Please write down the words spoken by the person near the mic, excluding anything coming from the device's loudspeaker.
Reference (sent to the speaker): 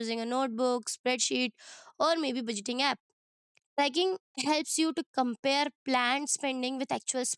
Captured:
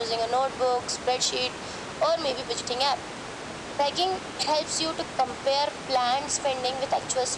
none

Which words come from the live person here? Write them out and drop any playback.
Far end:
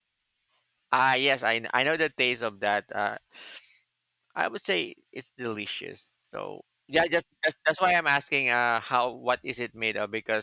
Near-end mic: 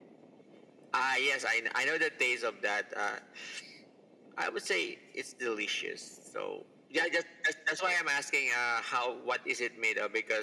none

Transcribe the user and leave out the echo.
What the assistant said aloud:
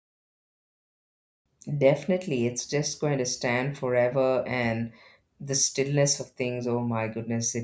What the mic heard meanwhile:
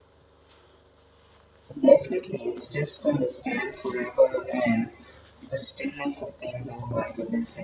none

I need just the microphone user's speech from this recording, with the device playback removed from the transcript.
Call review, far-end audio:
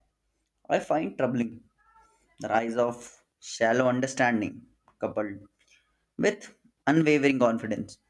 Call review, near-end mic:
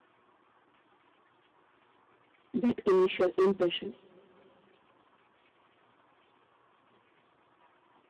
that initial impression.

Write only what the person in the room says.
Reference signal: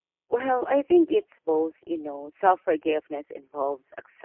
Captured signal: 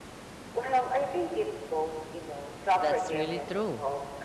That's really true.

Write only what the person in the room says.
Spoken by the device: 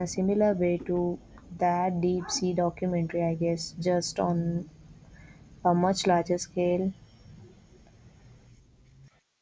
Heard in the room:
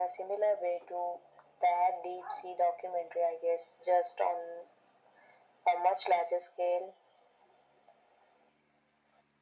none

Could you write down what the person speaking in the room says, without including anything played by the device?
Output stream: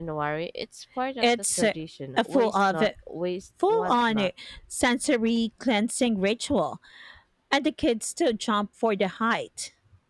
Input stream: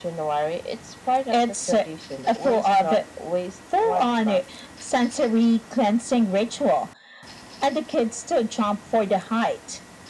none

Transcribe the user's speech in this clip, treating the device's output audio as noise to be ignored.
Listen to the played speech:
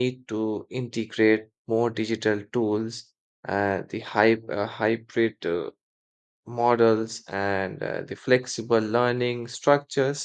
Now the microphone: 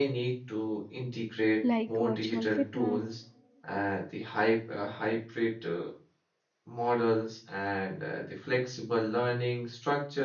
like virtual fitness

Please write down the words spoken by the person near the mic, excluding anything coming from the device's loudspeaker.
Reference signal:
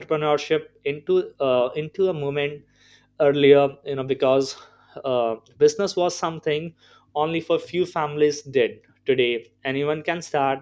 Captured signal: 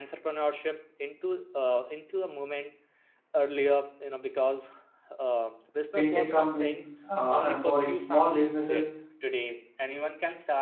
fintech companies uh, empowering small businesses

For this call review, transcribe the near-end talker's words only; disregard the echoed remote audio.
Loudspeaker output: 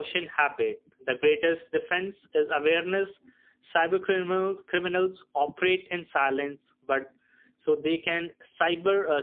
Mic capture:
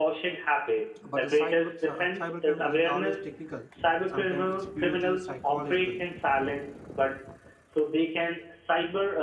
but the cyber cybercrime isn't always technical. Sometimes it's purely psychological

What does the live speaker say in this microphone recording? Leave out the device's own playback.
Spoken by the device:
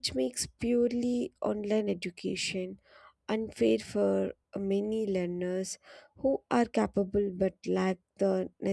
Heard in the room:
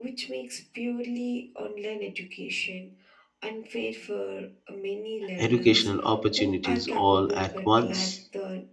educational opportunities all at once.

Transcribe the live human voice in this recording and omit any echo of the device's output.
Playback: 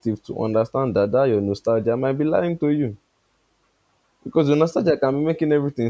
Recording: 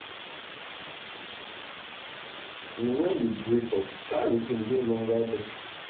You know, when you break up, that routine is no longer there

